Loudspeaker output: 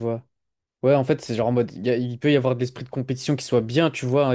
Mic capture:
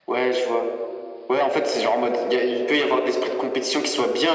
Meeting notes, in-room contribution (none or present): none